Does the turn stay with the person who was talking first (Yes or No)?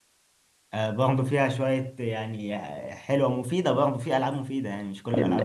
No